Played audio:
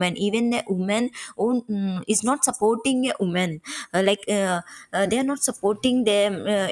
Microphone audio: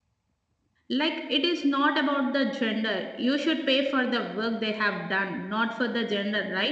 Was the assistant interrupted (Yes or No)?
Yes